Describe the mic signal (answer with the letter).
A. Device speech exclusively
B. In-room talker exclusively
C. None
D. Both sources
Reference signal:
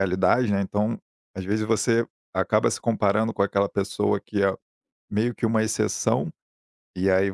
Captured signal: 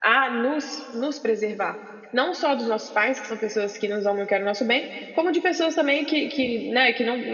B